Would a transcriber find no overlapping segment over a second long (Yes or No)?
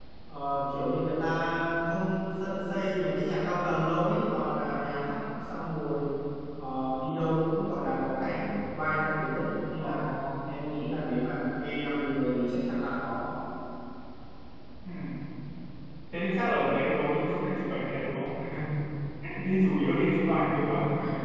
Yes